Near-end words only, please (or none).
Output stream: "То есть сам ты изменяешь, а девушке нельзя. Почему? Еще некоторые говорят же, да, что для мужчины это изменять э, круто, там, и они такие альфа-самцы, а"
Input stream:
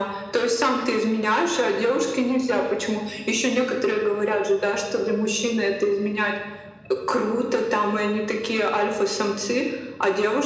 none